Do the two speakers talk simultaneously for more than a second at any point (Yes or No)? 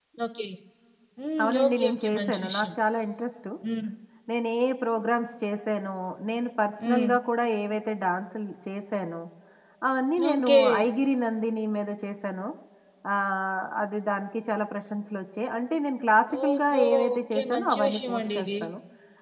Yes